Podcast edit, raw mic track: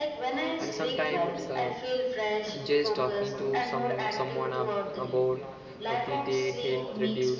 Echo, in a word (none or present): present